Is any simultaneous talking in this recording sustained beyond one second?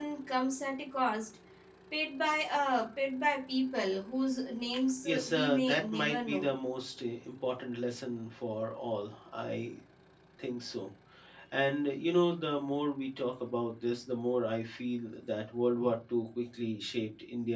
Yes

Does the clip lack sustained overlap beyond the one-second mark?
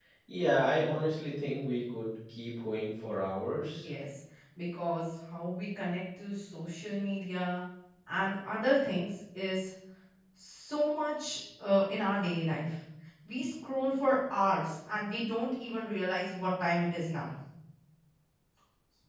Yes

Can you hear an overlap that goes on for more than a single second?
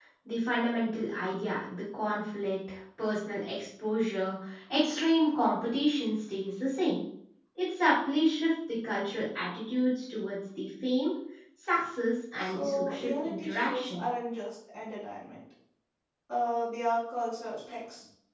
Yes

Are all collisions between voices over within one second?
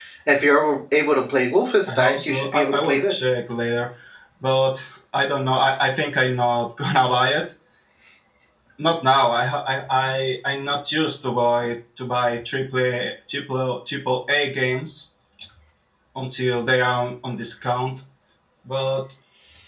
No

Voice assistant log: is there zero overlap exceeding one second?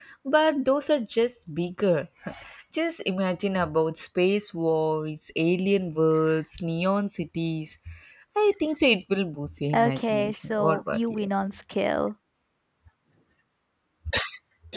No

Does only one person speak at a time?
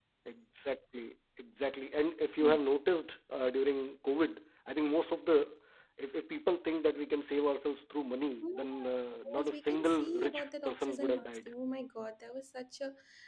No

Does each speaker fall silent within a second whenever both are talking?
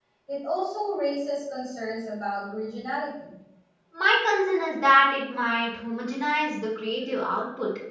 Yes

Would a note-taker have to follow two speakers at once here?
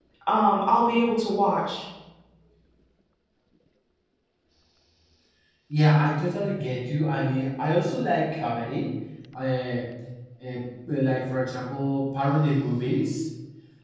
No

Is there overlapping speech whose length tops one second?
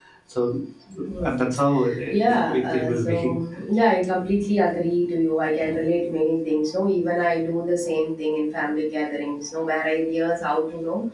Yes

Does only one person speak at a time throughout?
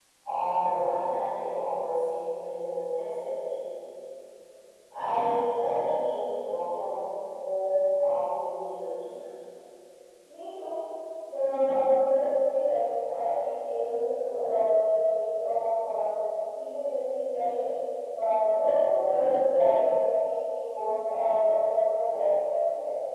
Yes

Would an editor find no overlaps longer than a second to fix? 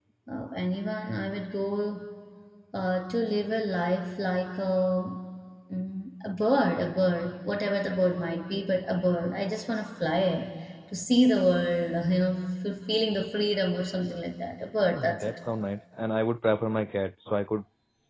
Yes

